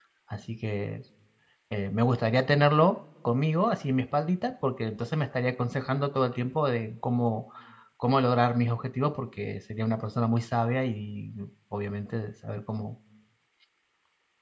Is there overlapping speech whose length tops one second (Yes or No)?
No